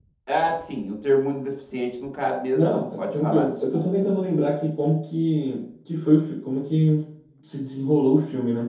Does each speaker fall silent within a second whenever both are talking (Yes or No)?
No